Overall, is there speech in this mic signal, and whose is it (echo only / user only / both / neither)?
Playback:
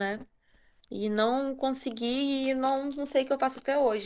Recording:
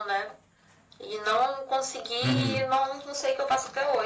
both